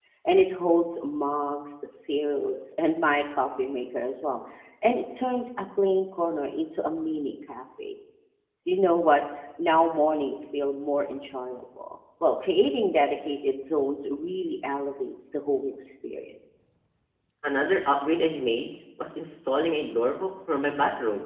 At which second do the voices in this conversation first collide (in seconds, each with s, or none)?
none